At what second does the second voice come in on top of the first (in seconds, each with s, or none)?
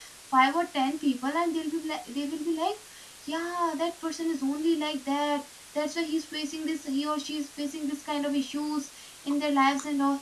none